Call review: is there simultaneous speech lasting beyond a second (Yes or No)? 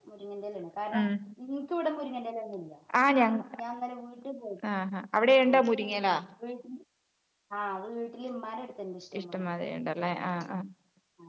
No